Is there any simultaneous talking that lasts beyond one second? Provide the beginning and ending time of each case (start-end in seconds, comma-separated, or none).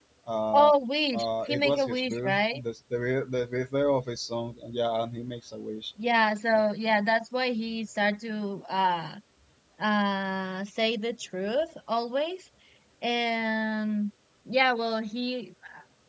1.1-2.6